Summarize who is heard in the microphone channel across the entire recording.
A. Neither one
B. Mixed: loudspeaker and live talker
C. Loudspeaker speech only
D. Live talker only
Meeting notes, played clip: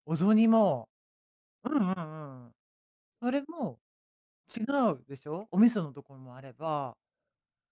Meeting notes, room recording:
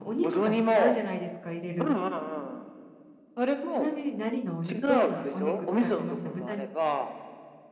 B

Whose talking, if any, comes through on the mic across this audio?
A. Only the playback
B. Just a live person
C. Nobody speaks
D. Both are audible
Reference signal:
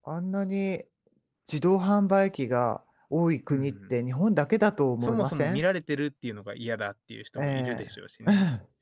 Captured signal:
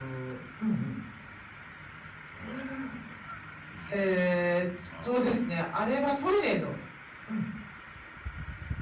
B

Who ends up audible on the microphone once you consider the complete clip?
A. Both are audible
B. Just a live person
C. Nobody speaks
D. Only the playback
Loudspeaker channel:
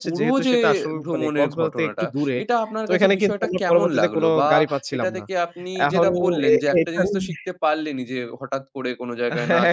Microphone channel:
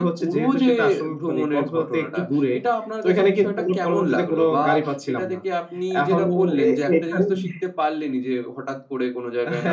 D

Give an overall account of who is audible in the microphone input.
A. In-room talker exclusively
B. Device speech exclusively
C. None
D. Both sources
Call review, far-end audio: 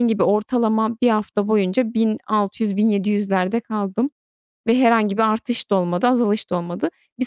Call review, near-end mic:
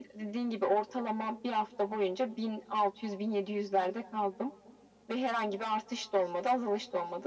B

